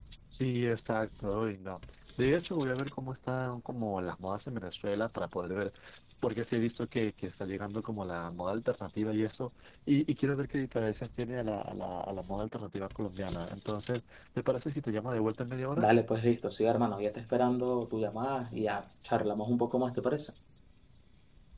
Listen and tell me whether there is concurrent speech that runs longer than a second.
No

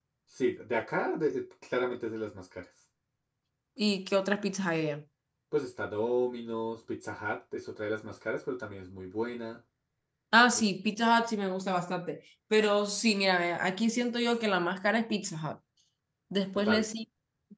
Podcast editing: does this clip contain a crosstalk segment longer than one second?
No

